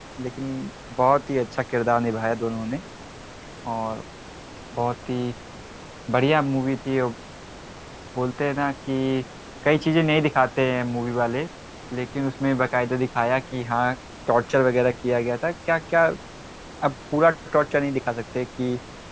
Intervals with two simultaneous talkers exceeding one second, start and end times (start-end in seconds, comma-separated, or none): none